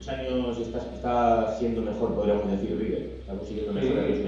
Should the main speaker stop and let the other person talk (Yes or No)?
Yes